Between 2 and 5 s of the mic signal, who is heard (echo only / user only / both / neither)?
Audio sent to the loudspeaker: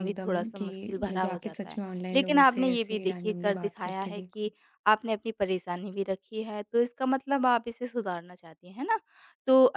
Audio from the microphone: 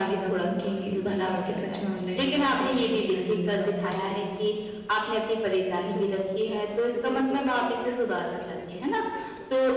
echo only